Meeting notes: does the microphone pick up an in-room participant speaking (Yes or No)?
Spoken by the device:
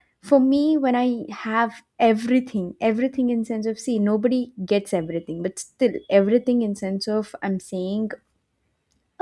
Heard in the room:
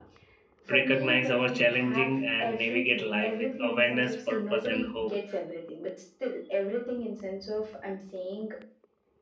Yes